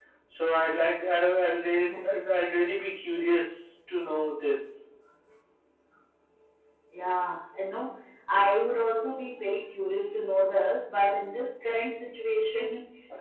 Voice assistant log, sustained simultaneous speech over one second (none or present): none